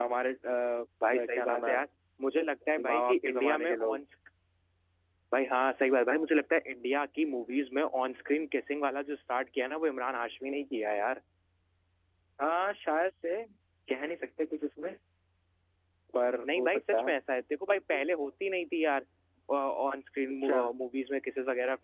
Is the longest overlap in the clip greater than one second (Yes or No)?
Yes